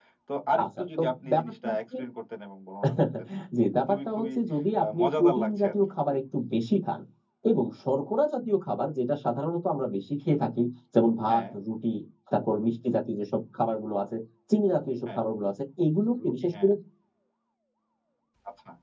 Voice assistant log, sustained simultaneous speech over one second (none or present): present